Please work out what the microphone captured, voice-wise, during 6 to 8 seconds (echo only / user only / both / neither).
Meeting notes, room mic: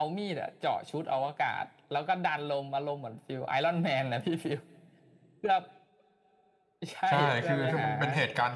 both